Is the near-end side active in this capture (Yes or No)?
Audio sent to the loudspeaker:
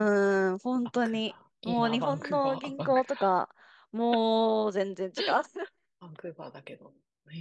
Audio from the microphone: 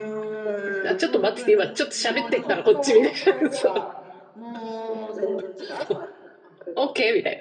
Yes